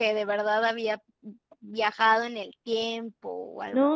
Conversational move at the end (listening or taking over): taking over